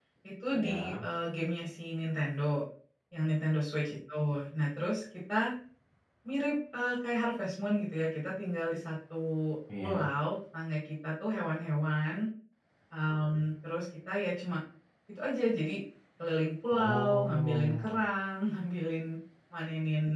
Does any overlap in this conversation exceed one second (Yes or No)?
Yes